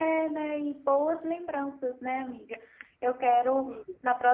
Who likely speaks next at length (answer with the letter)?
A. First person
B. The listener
A